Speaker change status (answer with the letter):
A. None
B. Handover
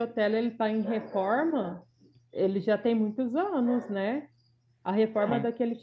A